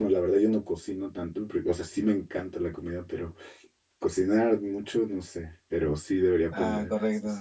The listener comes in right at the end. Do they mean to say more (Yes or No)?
Yes